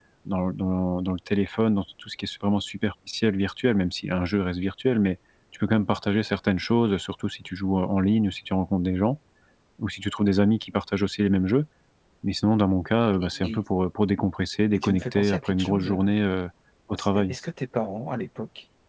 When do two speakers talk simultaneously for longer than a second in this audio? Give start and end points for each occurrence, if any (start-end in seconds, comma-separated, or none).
14.7-16.0